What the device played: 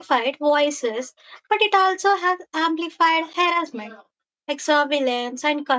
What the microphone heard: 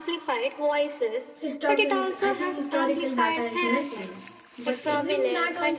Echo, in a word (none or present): present